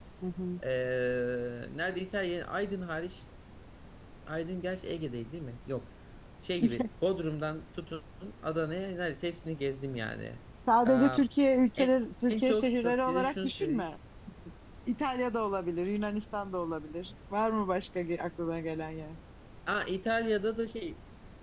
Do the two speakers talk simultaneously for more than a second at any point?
Yes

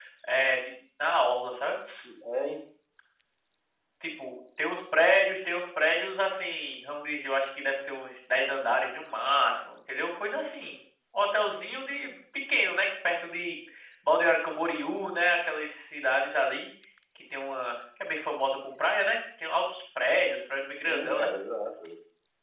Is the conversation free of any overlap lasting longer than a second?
Yes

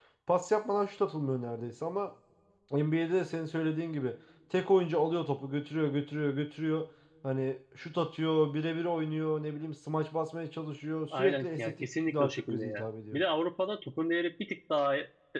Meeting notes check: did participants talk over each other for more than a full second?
Yes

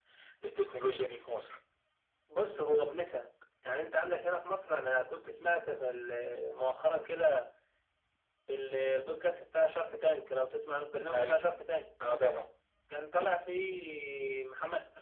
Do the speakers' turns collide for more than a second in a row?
No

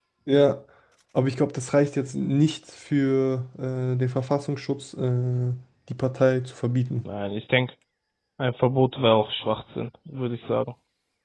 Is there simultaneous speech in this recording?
No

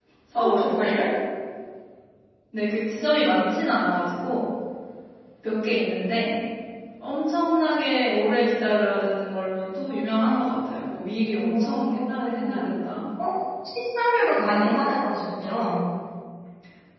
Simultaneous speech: Yes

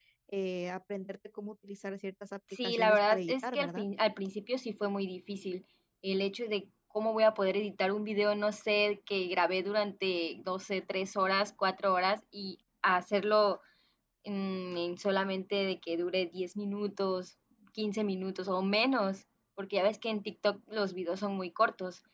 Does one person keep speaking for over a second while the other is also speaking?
Yes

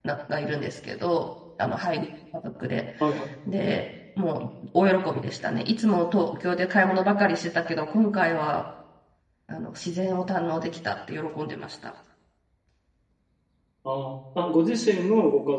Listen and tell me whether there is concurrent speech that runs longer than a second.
No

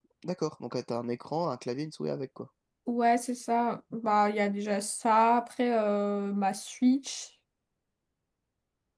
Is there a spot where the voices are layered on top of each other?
No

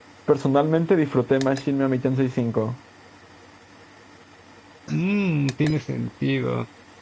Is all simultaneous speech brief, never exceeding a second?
Yes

